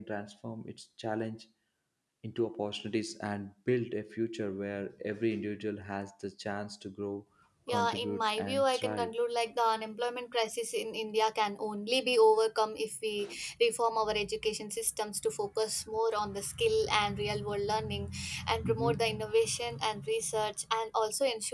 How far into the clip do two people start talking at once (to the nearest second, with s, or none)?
8 s